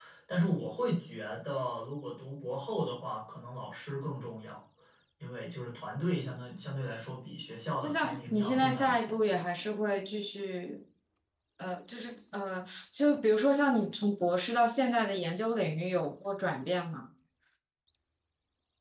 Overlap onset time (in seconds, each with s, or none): 7.8 s